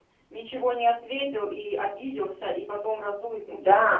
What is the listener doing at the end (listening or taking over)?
taking over